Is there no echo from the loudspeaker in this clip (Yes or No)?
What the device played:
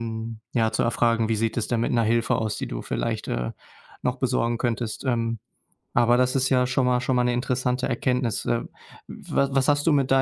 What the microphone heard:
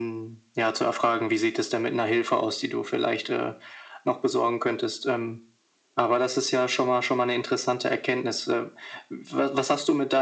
No